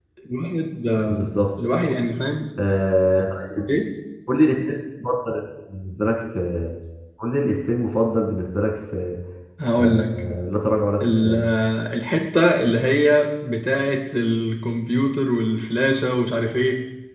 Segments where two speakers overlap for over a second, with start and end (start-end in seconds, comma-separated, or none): none